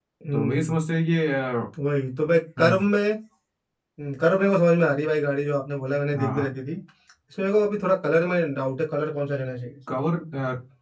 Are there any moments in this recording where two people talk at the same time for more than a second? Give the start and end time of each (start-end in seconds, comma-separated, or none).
none